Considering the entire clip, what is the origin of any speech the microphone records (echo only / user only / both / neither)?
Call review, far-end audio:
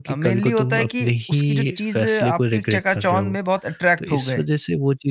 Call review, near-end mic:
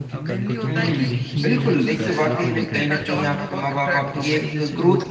both